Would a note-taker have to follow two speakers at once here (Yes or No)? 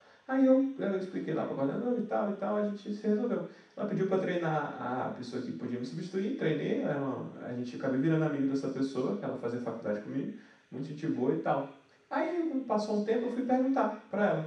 No